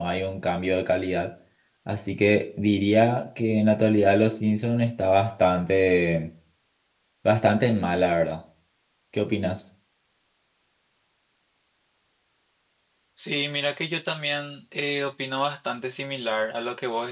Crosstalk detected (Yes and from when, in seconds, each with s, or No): No